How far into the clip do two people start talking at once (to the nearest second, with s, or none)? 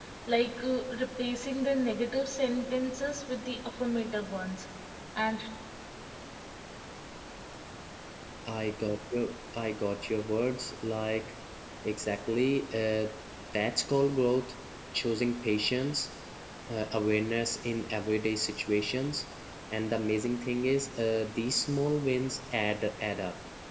none